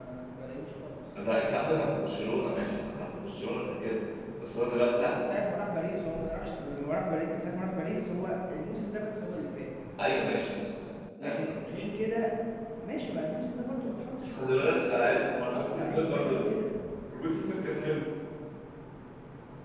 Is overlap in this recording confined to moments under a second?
No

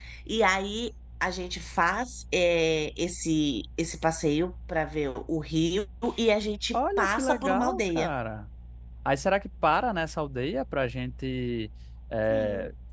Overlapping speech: Yes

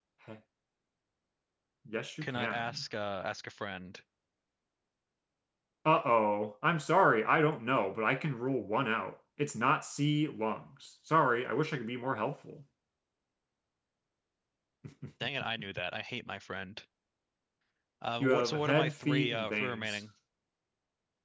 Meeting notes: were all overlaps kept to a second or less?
No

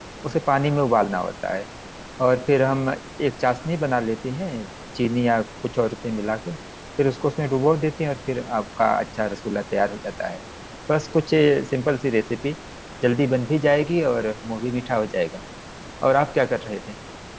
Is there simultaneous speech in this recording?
No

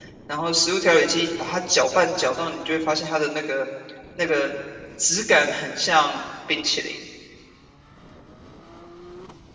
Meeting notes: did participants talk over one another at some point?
No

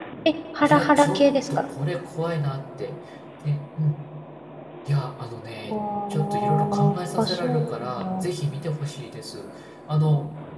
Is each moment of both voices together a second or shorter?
No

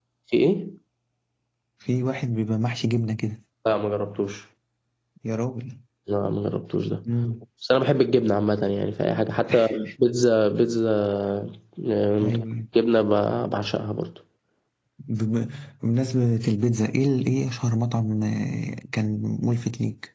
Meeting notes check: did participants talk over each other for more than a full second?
No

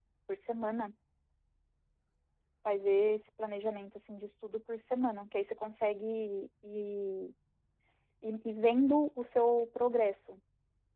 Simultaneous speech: No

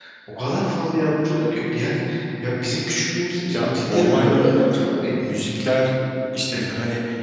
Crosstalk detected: Yes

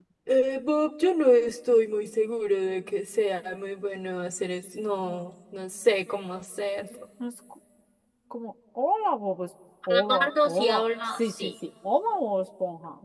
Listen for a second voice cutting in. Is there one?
Yes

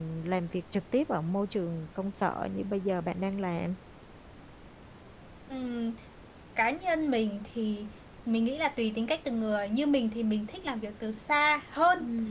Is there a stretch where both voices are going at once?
No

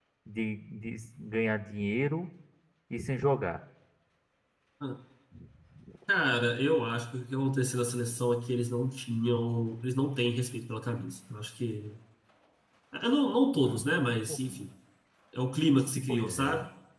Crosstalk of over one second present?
No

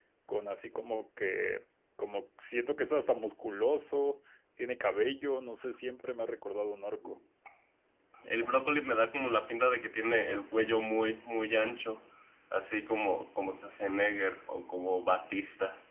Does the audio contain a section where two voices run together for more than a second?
No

